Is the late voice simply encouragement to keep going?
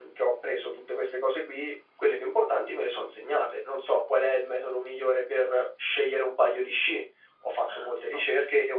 Yes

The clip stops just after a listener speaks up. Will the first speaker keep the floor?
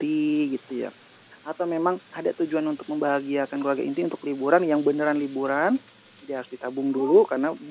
Yes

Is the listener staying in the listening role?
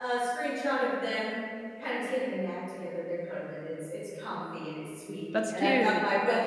Yes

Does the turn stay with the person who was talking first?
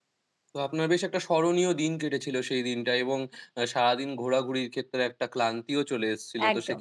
Yes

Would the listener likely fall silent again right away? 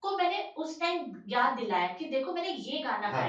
Yes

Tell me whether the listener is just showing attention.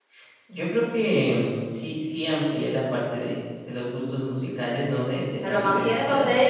No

